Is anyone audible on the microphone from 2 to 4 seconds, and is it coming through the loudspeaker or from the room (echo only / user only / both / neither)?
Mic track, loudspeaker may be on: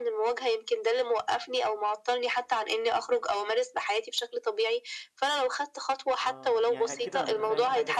echo only